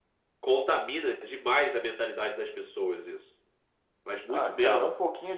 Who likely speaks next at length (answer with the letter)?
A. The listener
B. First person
A